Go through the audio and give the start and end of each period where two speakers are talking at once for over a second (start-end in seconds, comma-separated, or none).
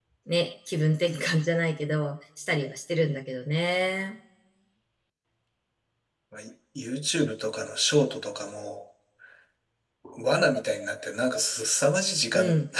none